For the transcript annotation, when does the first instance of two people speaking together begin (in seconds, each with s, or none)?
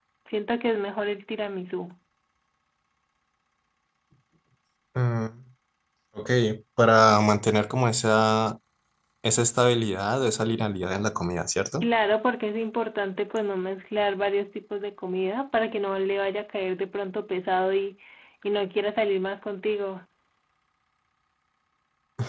none